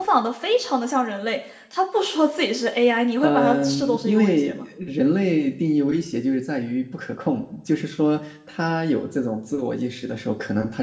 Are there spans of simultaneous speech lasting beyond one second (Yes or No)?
Yes